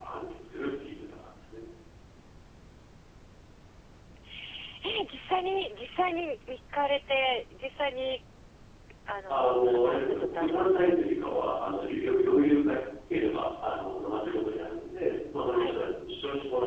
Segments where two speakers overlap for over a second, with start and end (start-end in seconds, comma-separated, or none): 9.3-10.9